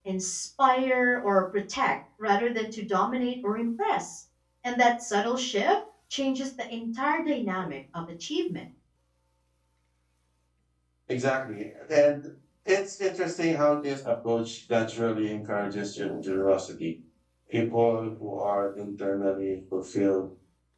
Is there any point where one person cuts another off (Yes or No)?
No